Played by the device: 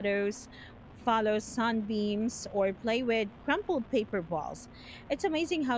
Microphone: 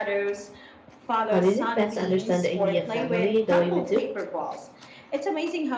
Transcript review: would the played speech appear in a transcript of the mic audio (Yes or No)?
Yes